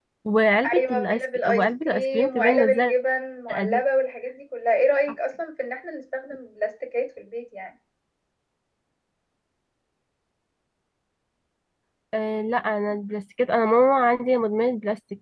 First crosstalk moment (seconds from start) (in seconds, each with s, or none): 0.8 s